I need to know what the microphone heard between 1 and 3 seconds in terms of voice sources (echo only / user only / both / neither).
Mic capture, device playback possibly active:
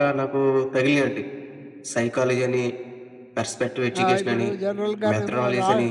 echo only